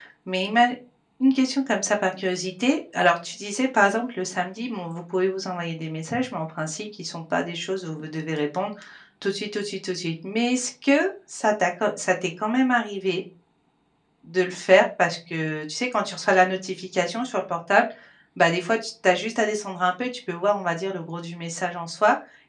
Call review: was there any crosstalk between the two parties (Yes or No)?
No